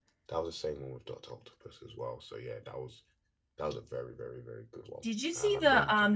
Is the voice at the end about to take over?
Yes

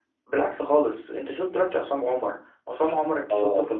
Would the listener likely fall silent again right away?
No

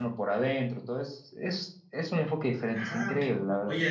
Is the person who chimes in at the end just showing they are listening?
No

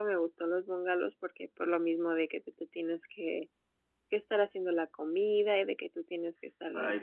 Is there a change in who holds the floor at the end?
Yes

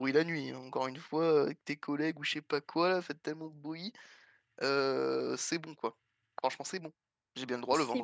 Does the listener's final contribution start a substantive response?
No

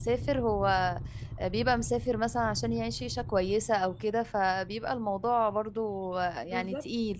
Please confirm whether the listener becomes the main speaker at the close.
Yes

